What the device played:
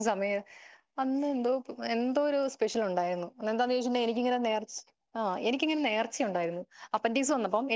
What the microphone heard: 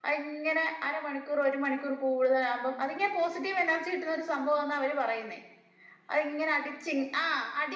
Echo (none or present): none